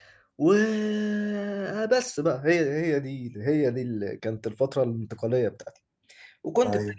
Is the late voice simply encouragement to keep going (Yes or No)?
Yes